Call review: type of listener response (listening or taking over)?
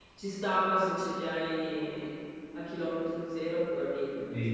taking over